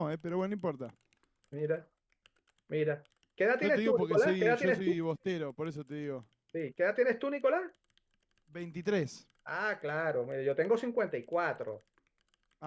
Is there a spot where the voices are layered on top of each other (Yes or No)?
Yes